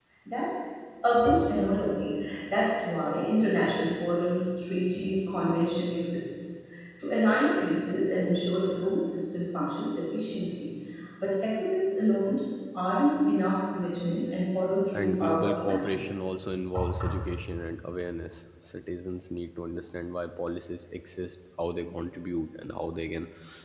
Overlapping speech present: Yes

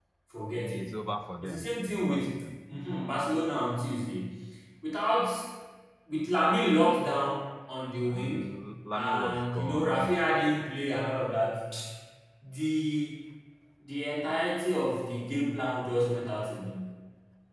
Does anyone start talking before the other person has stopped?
Yes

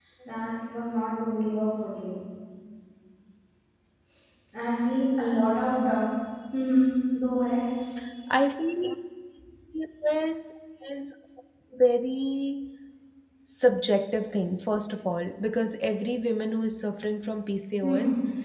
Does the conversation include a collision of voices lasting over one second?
No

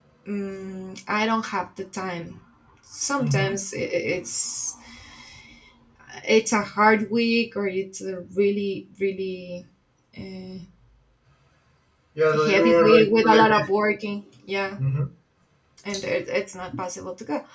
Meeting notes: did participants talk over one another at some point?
Yes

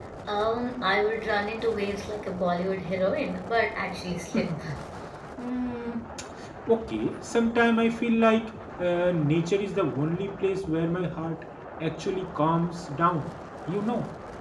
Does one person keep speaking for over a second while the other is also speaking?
No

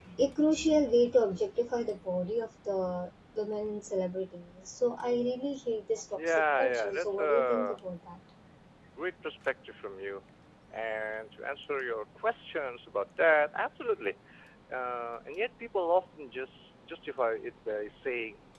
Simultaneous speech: Yes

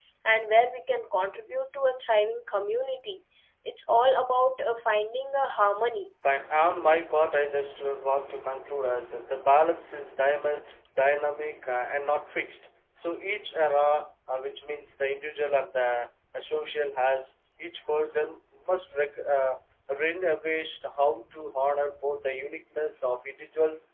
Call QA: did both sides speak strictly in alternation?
Yes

